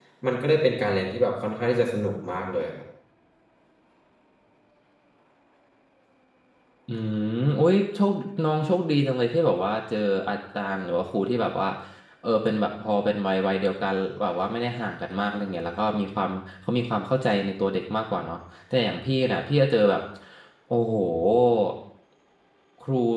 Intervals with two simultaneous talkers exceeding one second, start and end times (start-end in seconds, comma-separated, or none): none